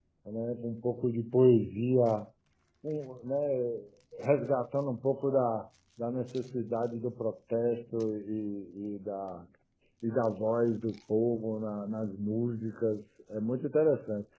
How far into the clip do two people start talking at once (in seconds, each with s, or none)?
none